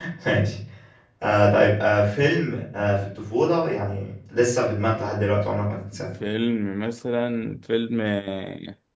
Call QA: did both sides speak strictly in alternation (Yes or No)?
Yes